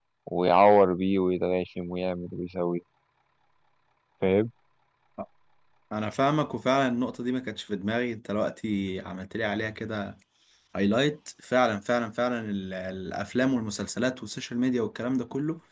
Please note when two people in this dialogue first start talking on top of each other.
none

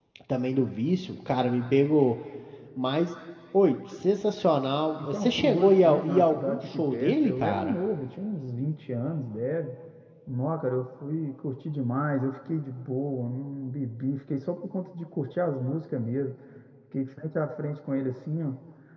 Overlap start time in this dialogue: 5.0 s

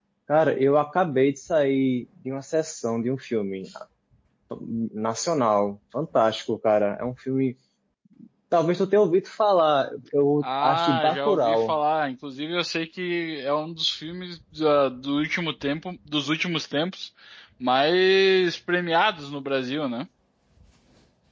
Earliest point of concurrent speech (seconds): 10.4 s

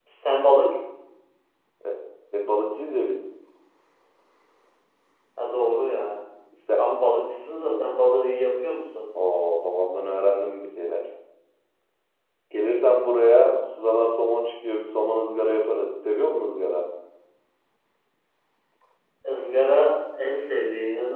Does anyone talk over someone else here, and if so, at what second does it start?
none

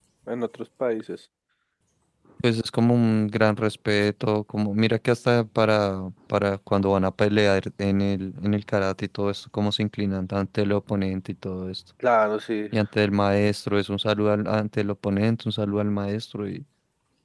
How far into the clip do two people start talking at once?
none

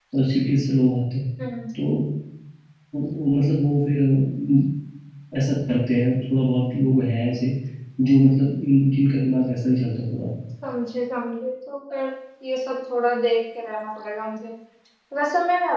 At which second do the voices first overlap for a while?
none

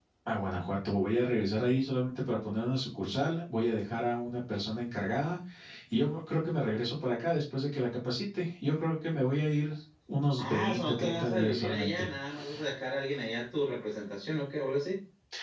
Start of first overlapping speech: 10.4 s

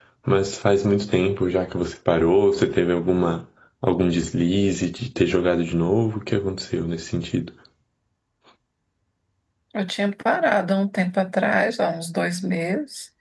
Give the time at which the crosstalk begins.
none

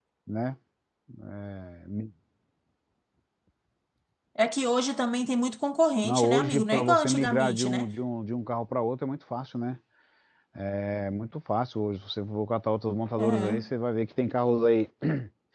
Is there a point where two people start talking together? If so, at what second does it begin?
6.0 s

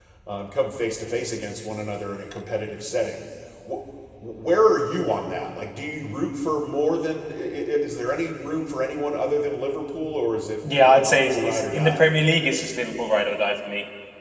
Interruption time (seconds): 10.6 s

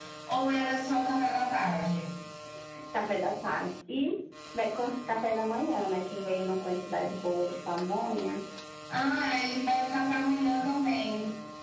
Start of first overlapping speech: none

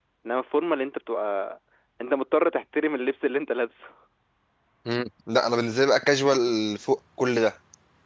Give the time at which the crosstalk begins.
none

